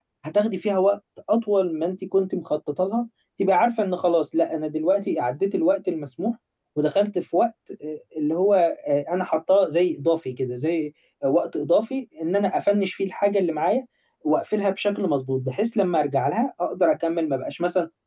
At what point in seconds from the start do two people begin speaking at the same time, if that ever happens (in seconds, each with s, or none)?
none